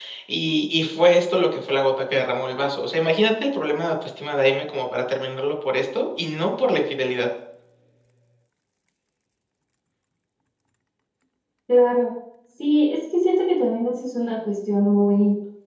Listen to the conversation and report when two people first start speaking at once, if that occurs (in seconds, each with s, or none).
none